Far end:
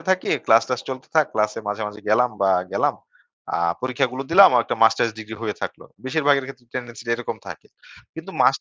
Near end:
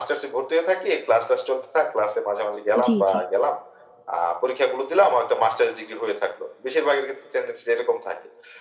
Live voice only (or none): জি, জি।